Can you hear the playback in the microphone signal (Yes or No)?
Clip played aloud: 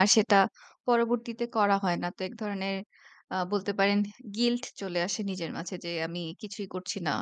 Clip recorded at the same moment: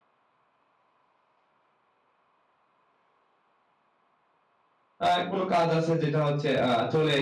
No